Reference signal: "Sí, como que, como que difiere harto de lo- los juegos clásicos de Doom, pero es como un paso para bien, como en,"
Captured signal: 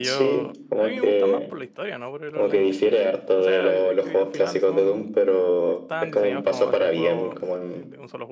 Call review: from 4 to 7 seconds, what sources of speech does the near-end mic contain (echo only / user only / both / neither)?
both